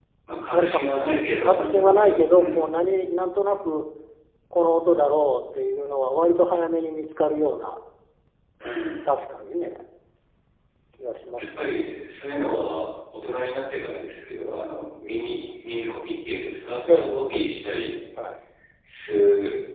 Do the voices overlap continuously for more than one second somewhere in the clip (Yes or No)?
Yes